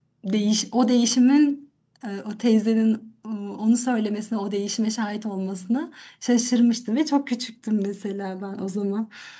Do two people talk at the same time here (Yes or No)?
No